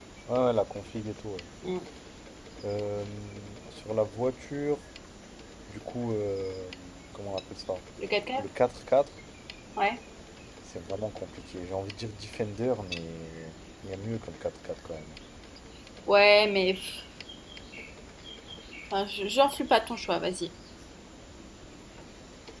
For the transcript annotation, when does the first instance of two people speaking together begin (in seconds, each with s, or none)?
none